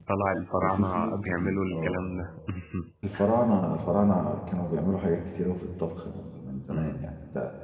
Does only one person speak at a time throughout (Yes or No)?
No